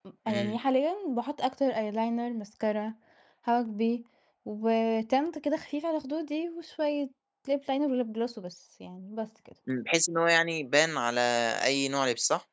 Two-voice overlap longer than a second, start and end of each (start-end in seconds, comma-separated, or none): none